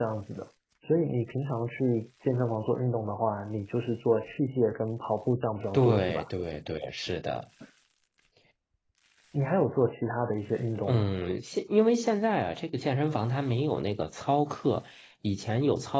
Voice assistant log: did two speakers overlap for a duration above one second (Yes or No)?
No